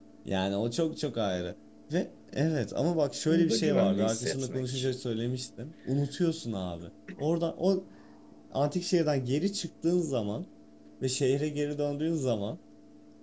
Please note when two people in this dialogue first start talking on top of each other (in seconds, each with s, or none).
3.3 s